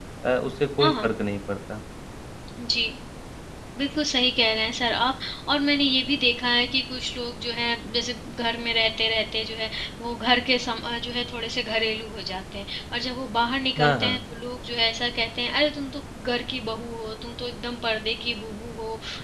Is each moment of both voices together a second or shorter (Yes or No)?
Yes